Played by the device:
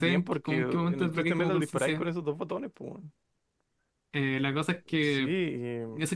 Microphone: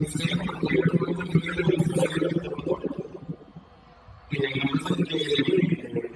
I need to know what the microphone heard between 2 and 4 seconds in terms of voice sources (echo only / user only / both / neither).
echo only